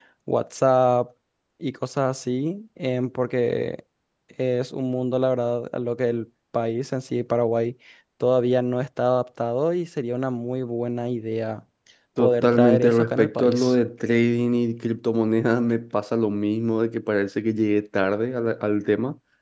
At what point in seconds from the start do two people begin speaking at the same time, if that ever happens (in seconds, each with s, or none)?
12.2 s